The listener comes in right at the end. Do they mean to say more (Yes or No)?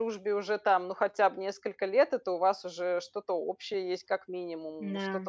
No